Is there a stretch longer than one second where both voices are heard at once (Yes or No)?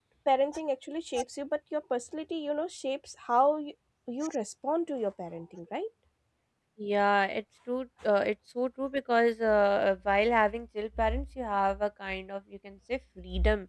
No